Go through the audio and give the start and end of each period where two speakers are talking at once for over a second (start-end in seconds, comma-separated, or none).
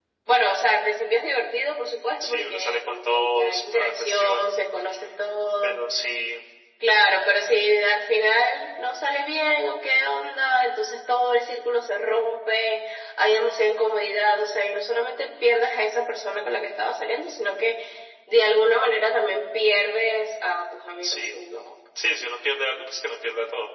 2.2-4.4